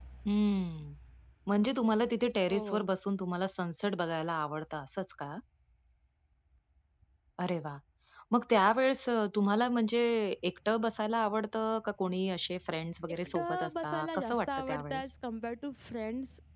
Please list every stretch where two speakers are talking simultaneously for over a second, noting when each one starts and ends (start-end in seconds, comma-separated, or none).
13.1-15.1